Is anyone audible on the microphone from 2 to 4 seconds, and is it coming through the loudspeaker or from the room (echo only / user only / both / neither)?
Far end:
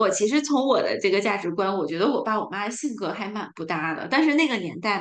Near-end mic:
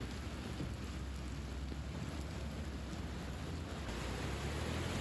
neither